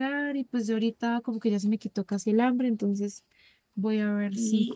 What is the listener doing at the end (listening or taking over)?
taking over